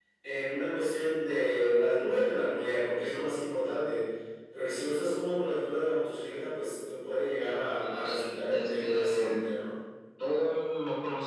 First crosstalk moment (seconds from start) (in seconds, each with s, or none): 7.8 s